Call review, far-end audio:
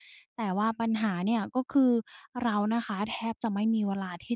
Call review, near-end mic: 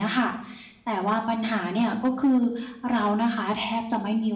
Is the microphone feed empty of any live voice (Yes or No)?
Yes